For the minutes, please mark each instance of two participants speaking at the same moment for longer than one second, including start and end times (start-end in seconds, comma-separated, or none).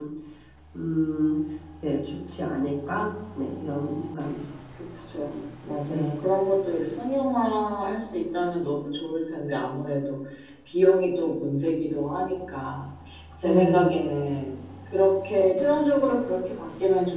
none